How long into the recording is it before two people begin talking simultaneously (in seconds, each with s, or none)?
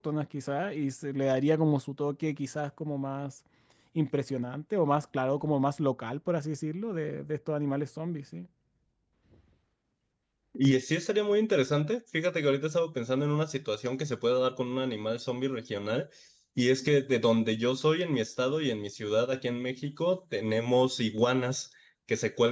none